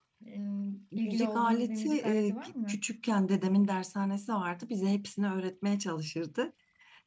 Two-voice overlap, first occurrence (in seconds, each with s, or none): 1.1 s